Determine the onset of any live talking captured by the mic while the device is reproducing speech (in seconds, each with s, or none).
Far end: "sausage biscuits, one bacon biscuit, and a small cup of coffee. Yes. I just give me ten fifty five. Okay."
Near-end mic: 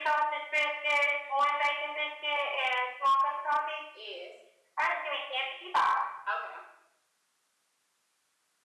none